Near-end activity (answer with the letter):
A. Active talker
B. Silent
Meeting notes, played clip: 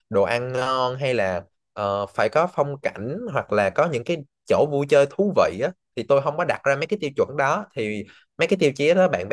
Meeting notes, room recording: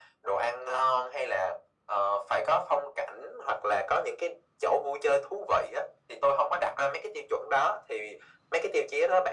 B